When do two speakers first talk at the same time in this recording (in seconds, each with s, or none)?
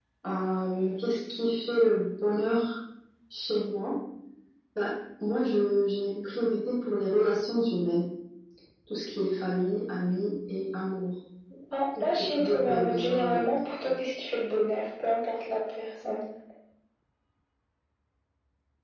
12.0 s